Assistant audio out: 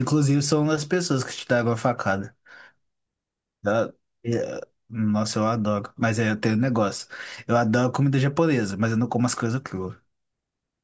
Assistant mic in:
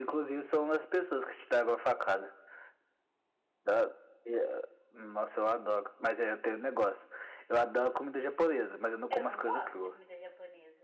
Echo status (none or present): present